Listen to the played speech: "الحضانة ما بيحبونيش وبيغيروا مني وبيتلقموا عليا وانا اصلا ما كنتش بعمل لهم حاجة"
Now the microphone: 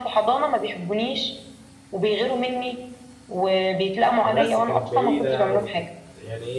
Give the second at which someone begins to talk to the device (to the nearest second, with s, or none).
4 s